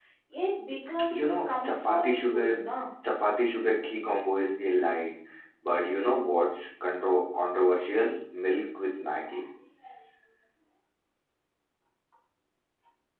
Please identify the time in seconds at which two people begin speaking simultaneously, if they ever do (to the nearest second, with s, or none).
1 s